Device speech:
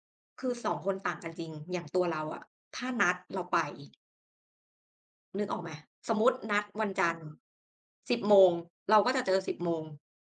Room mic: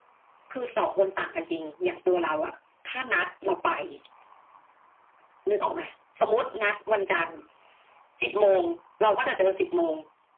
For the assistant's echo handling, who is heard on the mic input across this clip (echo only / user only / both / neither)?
echo only